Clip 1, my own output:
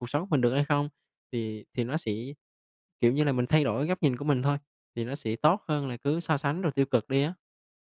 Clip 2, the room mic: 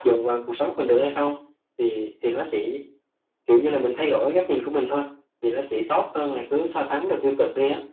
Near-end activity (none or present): none